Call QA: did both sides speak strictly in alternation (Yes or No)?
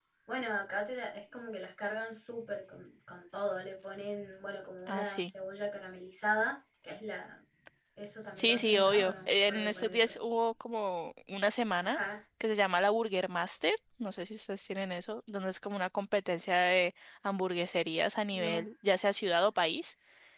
No